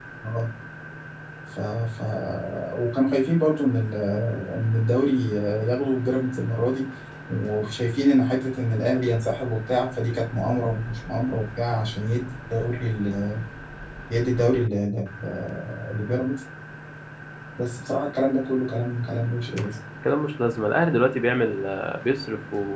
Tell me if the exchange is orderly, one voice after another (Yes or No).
Yes